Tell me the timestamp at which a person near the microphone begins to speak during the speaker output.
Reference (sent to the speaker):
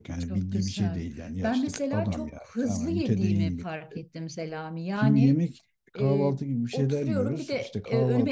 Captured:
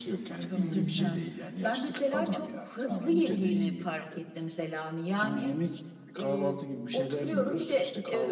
0.6 s

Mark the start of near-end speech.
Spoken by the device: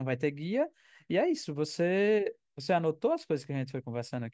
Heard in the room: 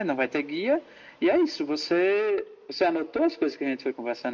none

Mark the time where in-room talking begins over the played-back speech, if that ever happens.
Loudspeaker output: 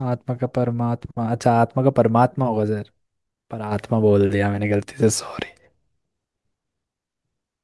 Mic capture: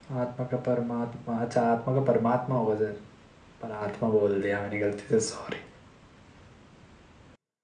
none

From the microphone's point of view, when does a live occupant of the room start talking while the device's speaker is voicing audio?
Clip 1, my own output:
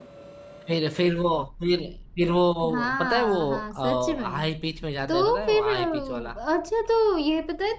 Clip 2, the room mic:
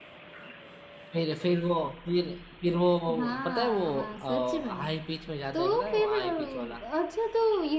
none

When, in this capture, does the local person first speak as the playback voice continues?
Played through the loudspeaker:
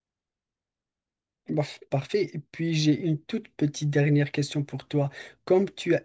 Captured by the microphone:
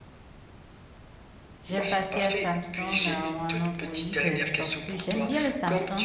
1.6 s

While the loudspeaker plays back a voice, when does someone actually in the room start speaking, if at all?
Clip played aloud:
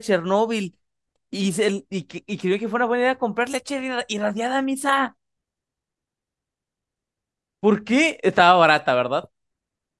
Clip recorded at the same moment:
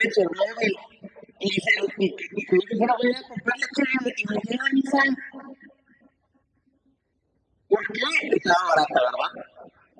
none

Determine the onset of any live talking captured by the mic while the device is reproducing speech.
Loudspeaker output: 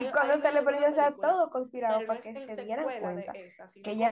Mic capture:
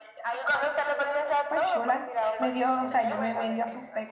1.3 s

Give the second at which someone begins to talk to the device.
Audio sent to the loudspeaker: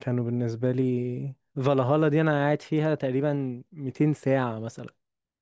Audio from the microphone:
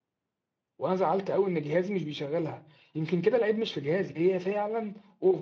0.8 s

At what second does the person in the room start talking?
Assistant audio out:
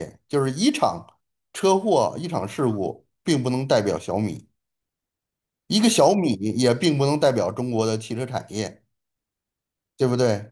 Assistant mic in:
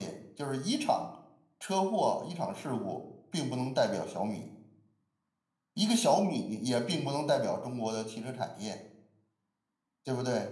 none

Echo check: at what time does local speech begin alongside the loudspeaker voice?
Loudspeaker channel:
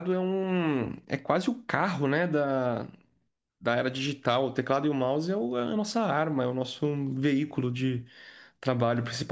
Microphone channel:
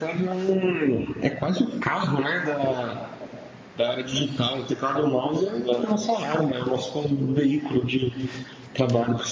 none

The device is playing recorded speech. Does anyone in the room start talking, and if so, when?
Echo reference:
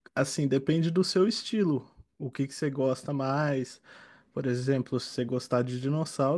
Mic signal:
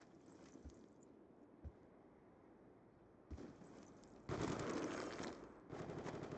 none

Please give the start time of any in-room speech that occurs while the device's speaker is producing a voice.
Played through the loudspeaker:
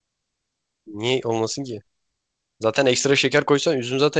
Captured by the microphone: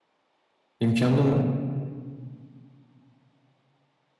0.8 s

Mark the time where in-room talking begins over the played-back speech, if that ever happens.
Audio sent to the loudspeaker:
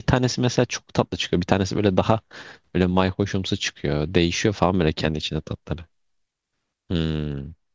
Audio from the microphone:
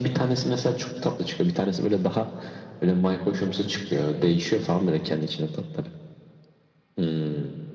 none

